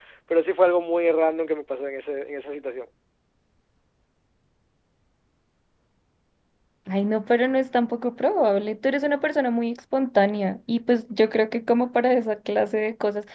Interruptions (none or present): none